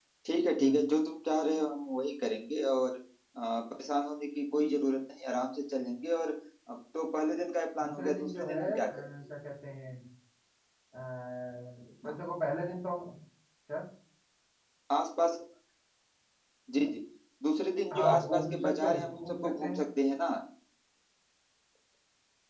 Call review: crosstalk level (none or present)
present